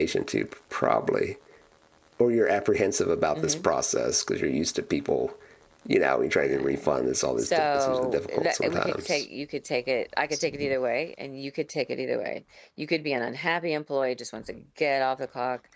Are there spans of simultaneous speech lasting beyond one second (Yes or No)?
Yes